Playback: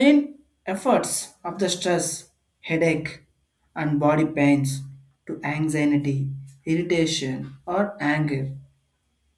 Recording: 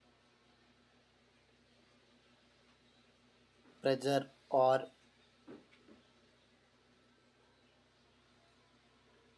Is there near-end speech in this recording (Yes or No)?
Yes